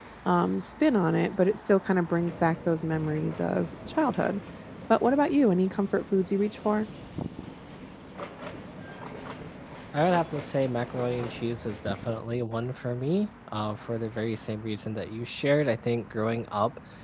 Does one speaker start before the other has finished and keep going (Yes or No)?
No